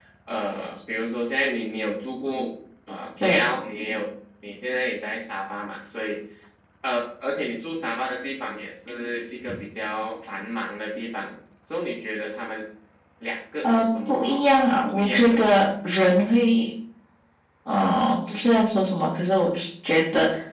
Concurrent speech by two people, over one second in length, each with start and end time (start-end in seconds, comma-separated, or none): 13.6-15.7